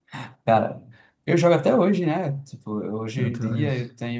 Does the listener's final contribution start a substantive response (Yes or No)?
No